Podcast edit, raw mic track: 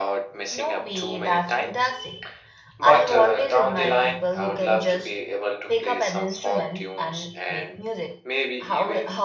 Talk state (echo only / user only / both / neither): both